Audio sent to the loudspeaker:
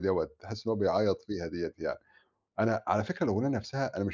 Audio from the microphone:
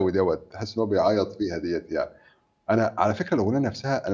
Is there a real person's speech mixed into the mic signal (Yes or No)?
No